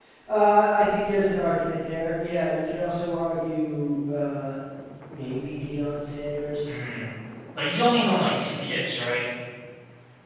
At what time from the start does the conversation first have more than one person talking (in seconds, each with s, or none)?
none